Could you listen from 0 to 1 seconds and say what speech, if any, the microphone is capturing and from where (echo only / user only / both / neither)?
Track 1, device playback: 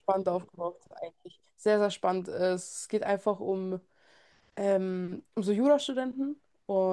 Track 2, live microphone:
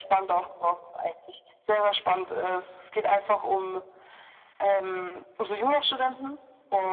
echo only